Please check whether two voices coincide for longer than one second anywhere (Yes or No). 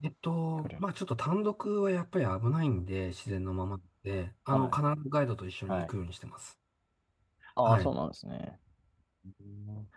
No